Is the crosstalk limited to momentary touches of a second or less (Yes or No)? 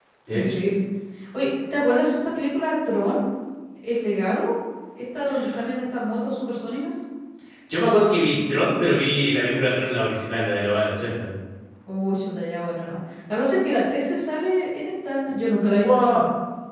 Yes